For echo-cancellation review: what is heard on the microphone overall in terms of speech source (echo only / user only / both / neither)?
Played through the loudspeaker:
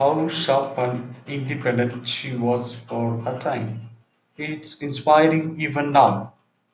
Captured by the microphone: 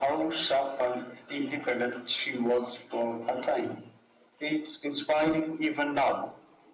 echo only